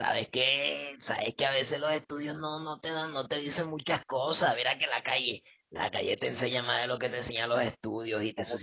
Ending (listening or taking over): taking over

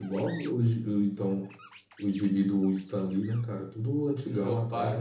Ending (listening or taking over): taking over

